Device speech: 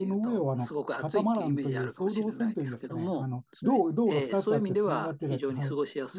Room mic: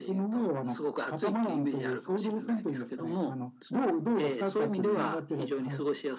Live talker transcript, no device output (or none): うん、